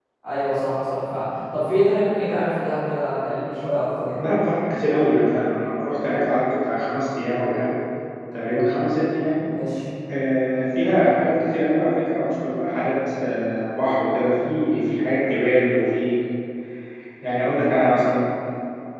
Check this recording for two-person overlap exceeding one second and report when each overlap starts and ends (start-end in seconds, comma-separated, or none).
none